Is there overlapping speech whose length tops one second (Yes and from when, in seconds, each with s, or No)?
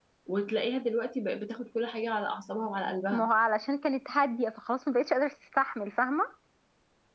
No